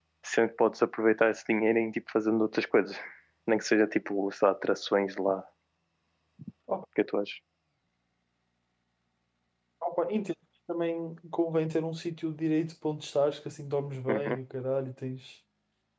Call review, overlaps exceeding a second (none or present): none